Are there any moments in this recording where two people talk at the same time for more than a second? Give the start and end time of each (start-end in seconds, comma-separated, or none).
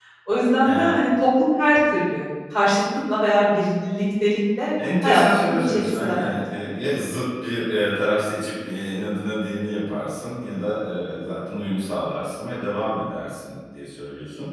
5.0-6.4